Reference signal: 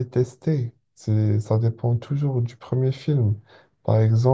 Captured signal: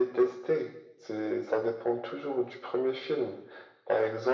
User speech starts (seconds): none

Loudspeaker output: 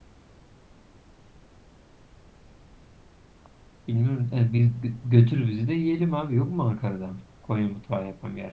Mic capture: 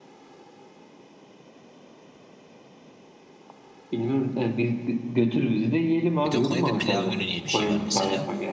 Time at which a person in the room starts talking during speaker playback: 6.2 s

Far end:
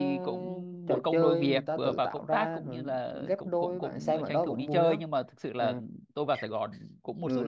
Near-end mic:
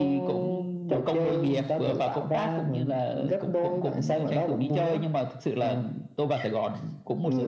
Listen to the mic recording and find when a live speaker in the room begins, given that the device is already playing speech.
none

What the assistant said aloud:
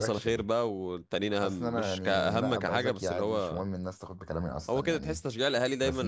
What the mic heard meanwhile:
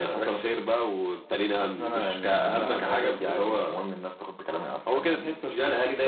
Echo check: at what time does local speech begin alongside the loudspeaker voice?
none

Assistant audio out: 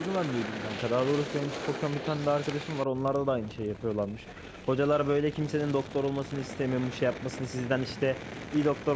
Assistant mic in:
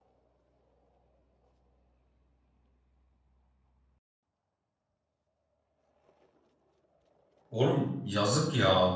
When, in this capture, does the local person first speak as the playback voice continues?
7.5 s

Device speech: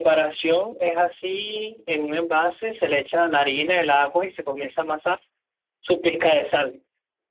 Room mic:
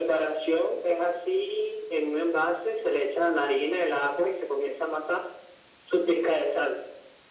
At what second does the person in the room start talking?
none

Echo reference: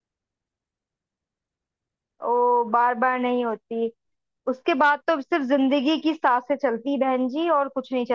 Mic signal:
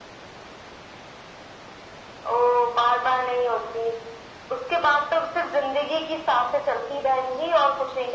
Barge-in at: none

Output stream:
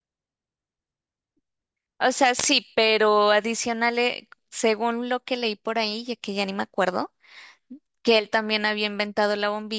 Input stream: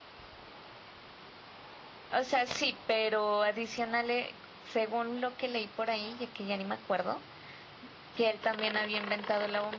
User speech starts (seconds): none

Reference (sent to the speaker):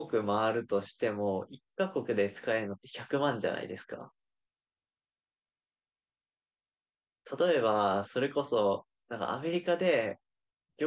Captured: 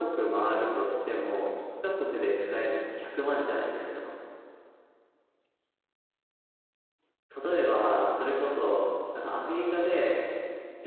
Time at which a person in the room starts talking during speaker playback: none

